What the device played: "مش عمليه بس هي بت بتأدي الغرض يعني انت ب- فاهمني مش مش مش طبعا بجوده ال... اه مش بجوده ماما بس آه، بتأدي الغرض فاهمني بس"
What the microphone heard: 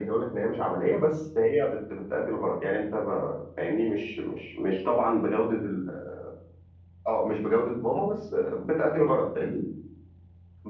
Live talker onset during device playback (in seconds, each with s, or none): none